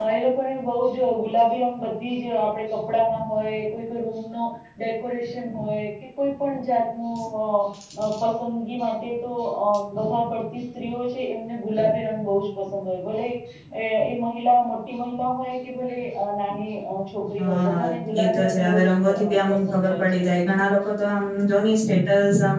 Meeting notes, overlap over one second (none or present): present